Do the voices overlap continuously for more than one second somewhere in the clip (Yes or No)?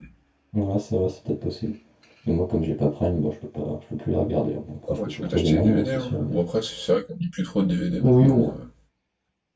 Yes